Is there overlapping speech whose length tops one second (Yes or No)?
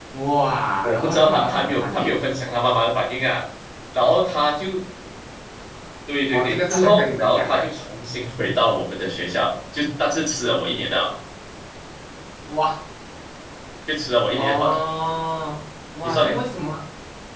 Yes